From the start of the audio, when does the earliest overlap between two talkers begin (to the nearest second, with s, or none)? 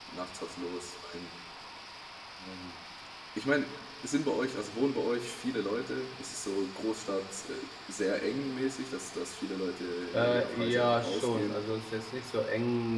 10 s